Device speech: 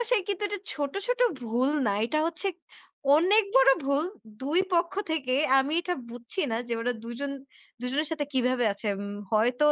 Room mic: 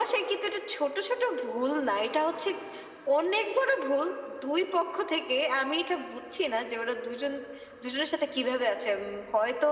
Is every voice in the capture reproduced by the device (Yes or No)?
Yes